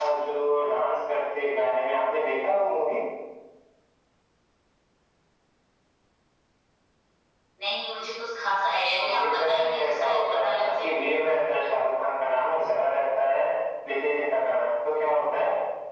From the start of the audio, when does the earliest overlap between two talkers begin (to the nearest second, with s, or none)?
9 s